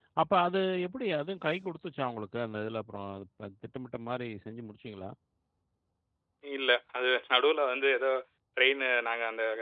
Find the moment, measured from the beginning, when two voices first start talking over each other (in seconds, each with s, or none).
none